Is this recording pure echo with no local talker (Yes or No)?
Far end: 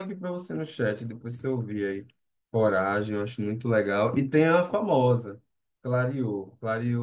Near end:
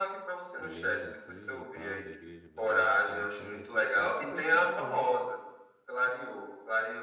No